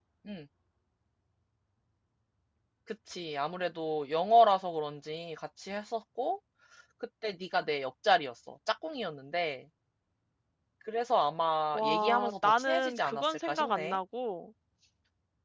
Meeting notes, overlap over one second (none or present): present